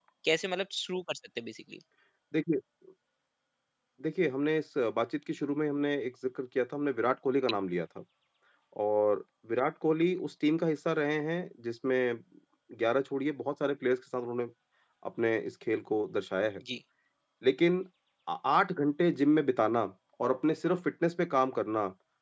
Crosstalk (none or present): none